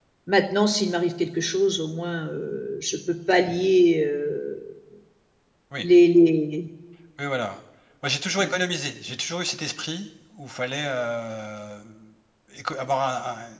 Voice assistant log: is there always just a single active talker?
Yes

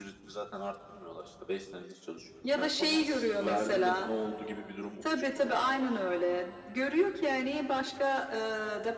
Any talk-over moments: Yes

